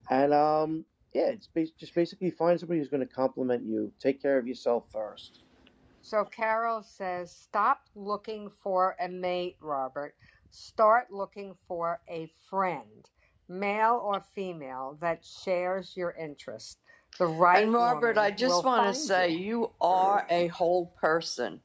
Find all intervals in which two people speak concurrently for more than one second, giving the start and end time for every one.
17.5-19.4

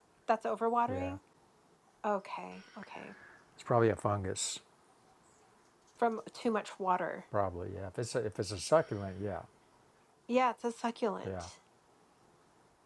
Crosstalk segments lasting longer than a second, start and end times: none

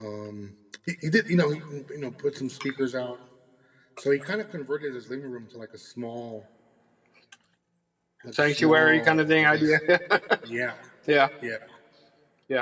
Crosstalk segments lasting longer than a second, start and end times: 8.3-9.8

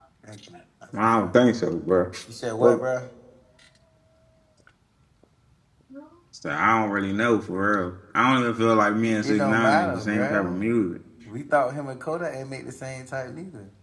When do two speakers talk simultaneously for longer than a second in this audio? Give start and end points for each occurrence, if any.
9.2-10.8

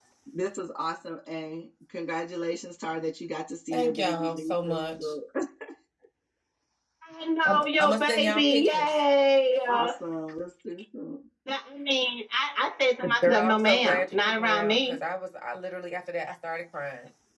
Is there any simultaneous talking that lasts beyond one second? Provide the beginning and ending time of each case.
3.7-5.1, 7.4-9.0, 13.2-15.0

